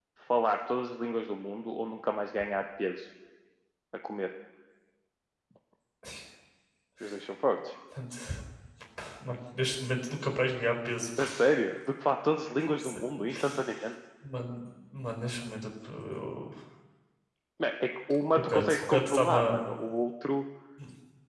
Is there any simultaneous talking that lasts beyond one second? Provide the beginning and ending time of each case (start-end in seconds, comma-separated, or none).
18.4-19.6